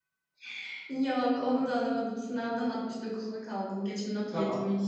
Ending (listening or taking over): taking over